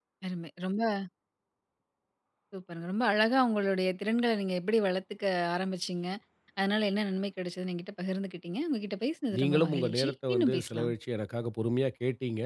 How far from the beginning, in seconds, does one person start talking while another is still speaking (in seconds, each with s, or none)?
9.3 s